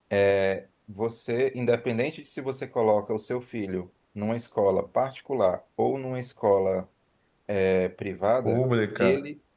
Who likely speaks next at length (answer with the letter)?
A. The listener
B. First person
A